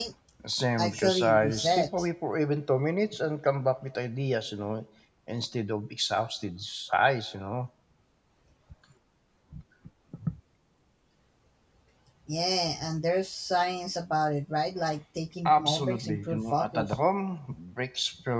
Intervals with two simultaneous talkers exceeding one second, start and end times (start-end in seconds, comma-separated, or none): 0.8-2.1, 15.5-17.0